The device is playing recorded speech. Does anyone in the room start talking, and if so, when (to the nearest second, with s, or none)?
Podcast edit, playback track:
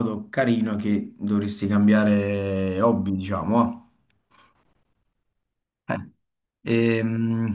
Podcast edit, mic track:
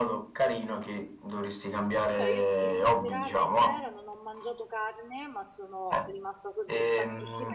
2 s